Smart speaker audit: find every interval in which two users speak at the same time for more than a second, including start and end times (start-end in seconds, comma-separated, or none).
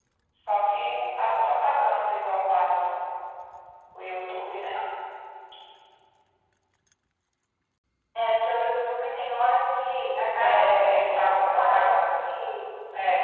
10.4-12.2